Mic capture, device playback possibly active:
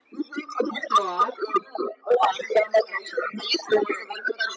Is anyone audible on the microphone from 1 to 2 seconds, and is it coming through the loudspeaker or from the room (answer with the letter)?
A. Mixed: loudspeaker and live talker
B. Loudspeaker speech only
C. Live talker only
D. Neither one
A